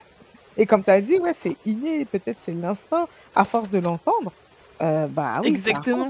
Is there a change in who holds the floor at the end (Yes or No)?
Yes